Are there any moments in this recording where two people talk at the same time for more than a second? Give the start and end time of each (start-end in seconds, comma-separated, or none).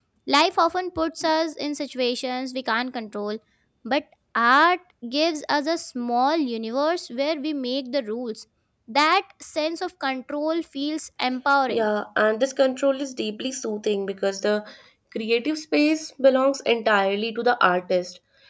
none